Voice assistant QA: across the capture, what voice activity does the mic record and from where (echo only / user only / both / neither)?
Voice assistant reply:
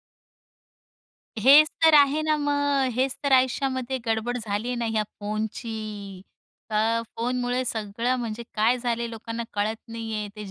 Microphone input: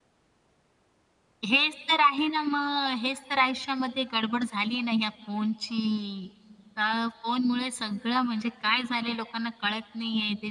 echo only